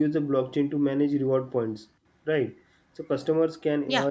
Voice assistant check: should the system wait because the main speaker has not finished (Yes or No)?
Yes